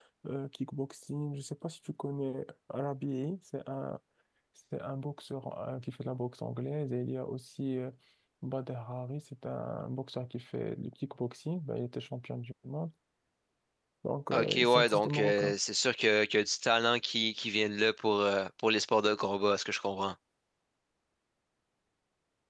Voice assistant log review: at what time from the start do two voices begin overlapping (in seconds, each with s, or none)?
14.3 s